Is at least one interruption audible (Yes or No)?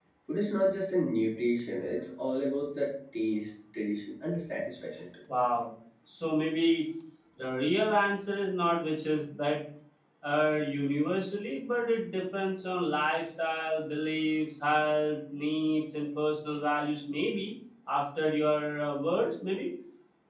No